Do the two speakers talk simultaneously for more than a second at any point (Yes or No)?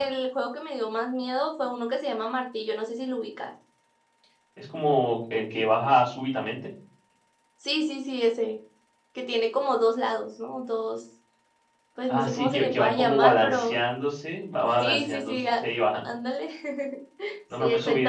Yes